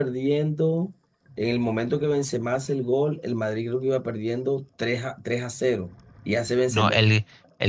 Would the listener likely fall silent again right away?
No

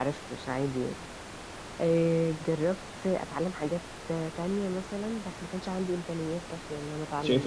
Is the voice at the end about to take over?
Yes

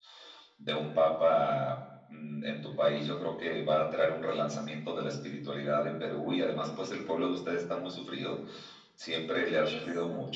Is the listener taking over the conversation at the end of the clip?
No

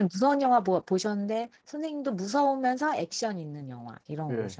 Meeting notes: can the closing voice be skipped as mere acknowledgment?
No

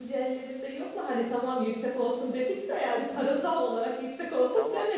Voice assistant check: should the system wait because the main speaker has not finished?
No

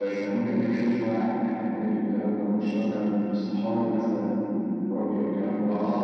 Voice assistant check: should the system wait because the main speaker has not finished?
No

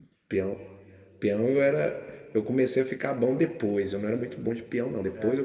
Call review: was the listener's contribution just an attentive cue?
Yes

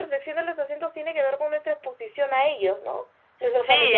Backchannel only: No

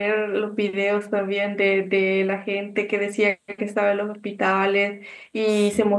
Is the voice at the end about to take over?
No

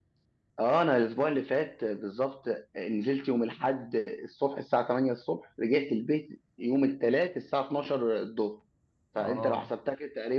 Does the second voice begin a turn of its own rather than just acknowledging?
No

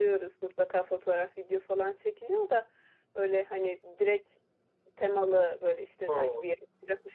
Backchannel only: Yes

